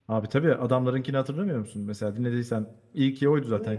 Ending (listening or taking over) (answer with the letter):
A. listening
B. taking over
B